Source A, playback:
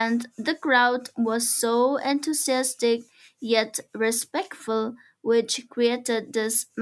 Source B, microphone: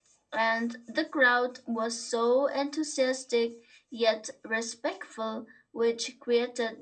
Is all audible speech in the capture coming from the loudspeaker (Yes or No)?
Yes